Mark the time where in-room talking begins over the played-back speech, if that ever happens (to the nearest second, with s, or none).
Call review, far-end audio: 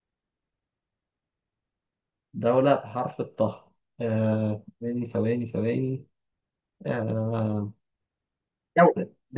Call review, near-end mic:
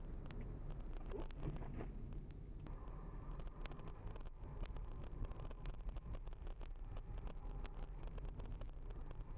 none